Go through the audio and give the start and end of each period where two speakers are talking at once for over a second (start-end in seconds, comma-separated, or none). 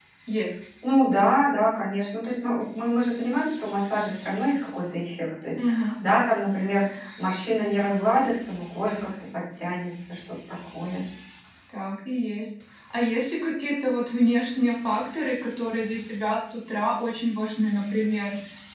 none